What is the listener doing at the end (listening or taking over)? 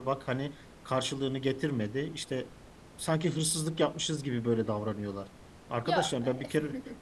listening